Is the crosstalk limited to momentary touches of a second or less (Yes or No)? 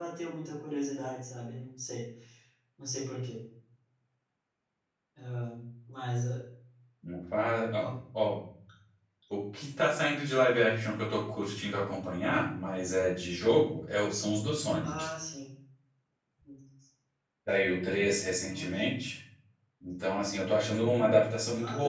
Yes